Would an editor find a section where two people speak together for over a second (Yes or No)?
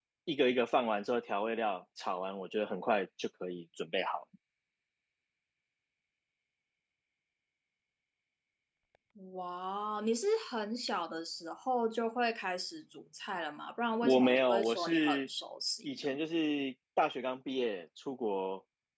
Yes